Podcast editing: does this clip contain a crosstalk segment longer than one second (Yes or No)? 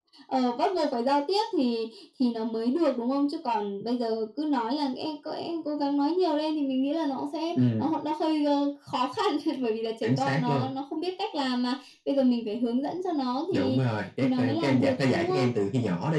Yes